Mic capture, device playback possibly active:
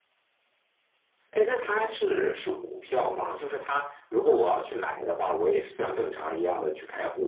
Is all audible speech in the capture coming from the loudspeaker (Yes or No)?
Yes